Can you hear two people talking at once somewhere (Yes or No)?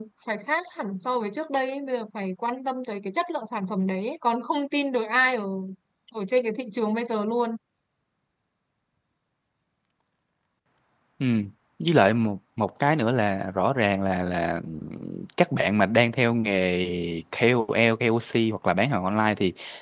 No